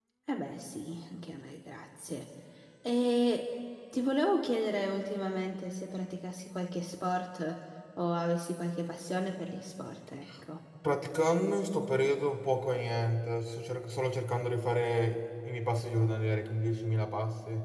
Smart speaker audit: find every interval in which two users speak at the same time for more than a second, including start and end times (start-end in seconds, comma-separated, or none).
none